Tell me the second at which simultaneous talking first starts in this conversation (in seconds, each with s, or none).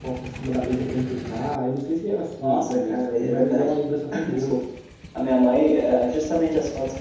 2.4 s